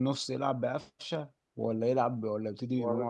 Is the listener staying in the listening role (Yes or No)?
No